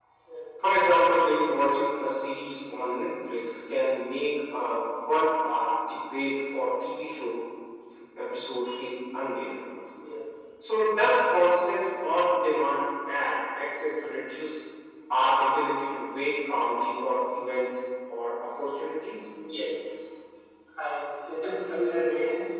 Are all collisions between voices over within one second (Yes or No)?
Yes